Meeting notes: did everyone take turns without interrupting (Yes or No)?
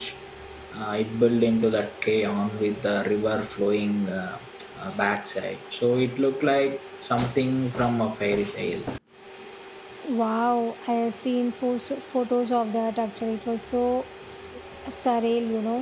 Yes